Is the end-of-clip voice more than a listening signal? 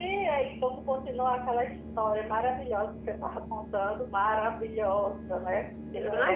Yes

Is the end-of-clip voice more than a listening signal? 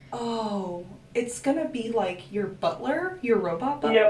Yes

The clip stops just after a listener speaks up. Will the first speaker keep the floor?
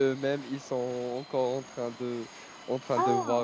Yes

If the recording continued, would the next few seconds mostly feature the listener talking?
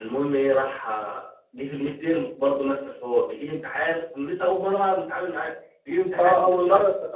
Yes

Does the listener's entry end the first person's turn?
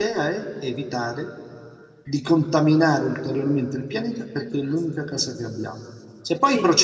No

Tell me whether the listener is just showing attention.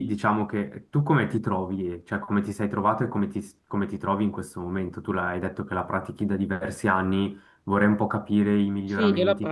No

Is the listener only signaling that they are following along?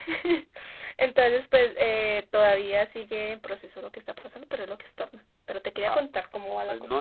No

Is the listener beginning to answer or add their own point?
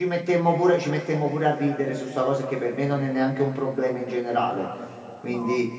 No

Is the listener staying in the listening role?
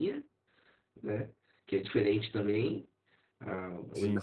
Yes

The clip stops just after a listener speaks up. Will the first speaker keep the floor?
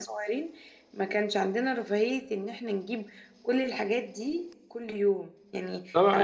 No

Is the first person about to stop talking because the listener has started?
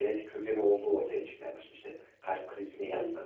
No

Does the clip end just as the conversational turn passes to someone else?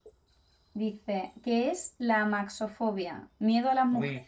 No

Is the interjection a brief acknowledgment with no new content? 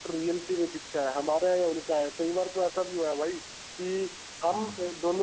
Yes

